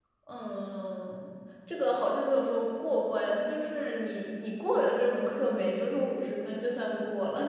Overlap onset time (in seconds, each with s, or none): none